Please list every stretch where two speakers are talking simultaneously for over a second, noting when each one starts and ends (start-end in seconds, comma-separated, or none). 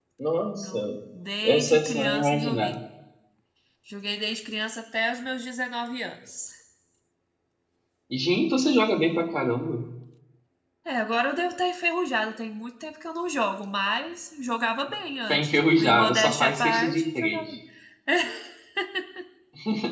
1.4-2.7, 15.3-17.5